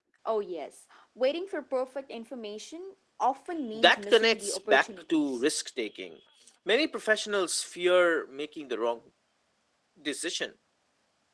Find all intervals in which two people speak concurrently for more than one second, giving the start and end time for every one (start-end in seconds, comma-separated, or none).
3.7-5.4